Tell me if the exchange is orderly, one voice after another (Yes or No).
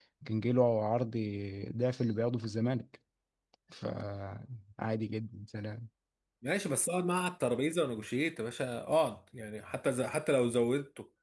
Yes